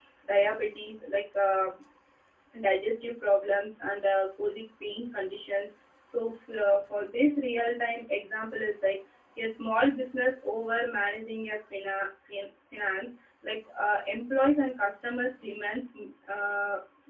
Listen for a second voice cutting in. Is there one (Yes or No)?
No